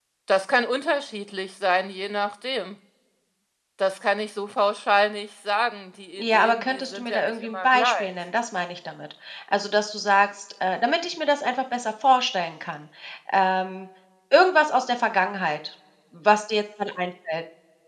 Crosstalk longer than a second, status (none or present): present